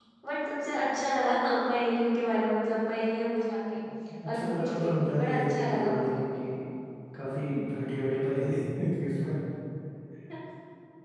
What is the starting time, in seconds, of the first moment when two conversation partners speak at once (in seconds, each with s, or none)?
4.3 s